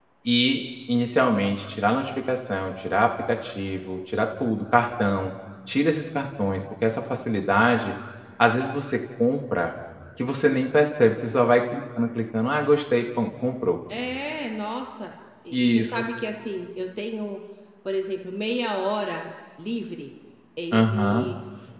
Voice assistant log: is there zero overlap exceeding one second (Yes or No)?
Yes